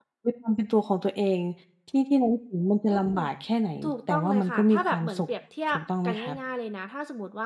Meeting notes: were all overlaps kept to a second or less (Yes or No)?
No